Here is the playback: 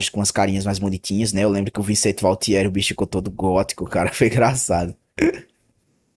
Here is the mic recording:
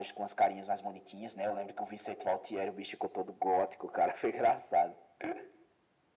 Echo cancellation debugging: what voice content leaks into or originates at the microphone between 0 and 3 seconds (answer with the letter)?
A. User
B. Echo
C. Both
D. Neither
B